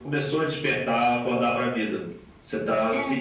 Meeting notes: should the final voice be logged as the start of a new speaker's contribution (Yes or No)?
No